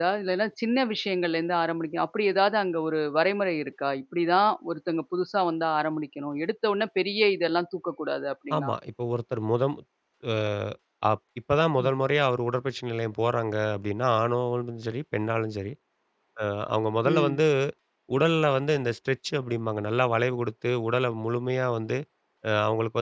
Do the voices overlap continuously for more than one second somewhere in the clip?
No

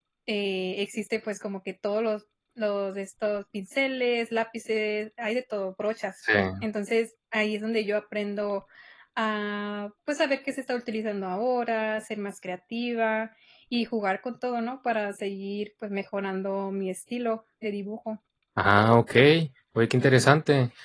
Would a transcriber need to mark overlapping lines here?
No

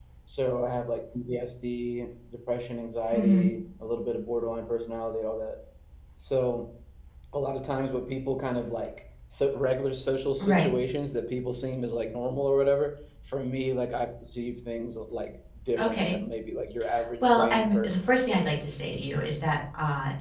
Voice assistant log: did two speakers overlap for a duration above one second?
Yes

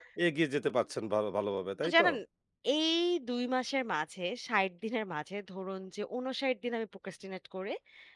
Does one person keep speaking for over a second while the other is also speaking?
No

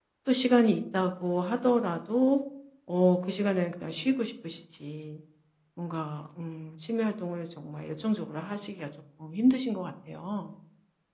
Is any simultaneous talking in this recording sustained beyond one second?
No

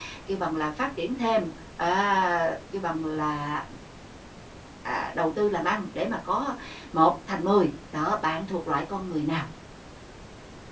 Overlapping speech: No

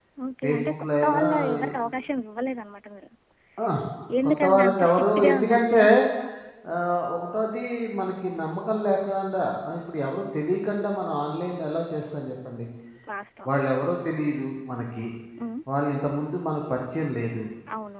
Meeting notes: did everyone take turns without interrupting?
No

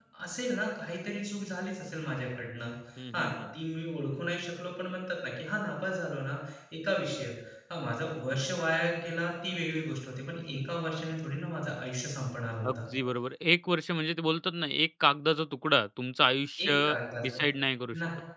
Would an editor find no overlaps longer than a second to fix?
Yes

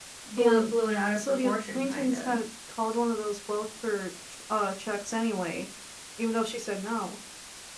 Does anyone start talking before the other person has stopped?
Yes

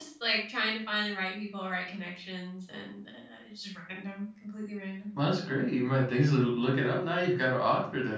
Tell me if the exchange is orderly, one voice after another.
Yes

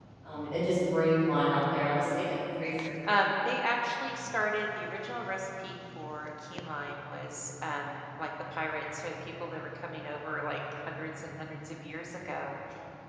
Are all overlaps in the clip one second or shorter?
Yes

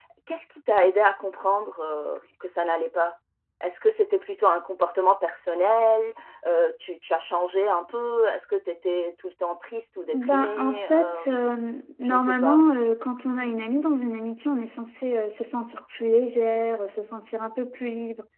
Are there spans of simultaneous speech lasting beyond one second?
Yes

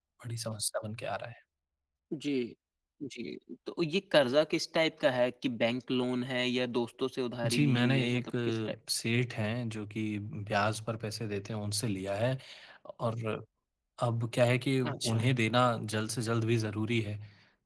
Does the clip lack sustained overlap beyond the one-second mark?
No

